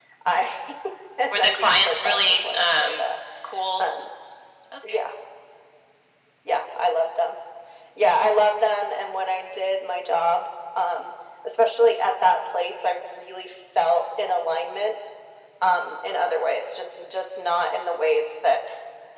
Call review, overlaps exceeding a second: present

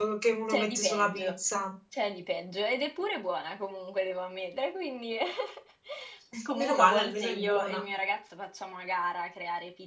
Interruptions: present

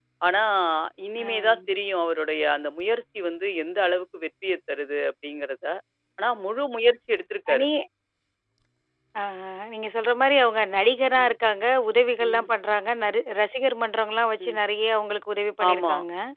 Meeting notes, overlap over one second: none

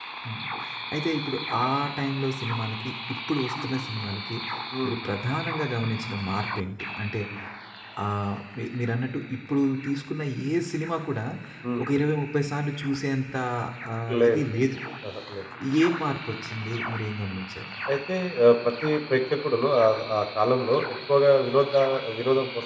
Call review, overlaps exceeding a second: none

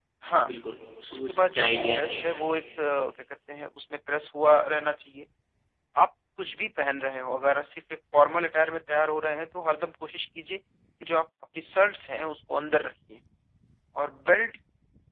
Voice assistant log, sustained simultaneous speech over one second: present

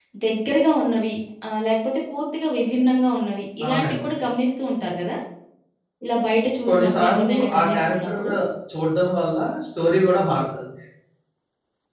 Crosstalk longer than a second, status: present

